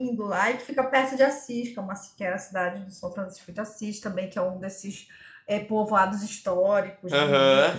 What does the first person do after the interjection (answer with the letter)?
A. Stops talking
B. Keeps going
B